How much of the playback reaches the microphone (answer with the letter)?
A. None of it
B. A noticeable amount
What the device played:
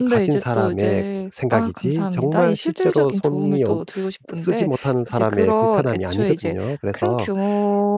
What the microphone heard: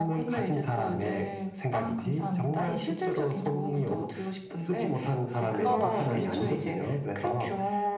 B